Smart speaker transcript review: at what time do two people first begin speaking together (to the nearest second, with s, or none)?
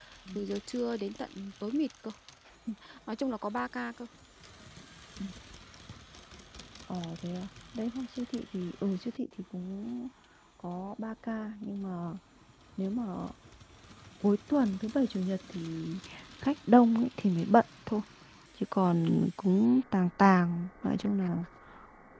none